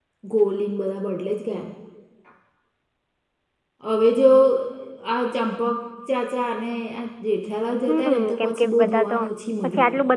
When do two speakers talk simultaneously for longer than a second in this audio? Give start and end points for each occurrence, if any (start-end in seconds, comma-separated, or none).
7.9-9.2